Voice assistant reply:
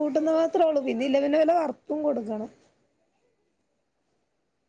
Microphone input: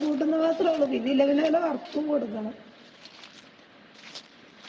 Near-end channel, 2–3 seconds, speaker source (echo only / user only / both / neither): echo only